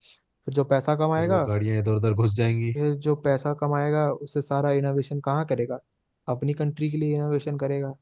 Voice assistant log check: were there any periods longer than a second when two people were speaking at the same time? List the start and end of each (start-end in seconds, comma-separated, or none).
none